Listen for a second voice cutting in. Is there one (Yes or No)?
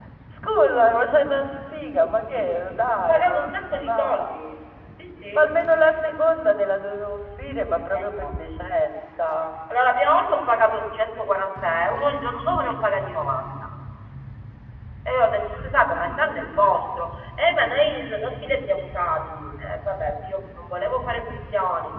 Yes